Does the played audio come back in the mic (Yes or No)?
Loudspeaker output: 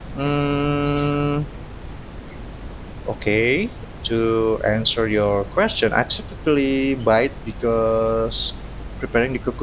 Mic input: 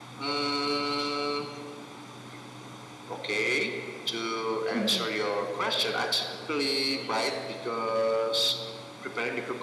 Yes